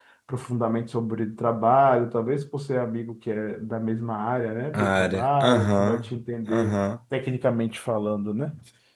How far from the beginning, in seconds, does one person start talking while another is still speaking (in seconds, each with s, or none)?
4.7 s